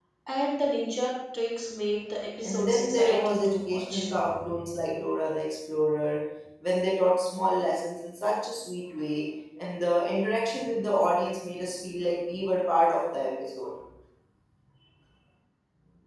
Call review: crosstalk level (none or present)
present